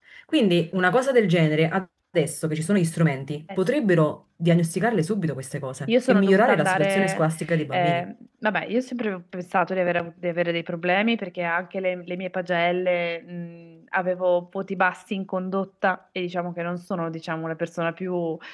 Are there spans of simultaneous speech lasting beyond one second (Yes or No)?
Yes